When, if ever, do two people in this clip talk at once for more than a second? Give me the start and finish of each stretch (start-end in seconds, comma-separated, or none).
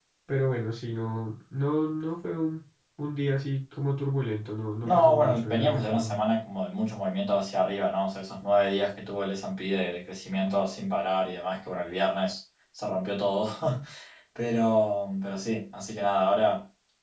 4.8-6.2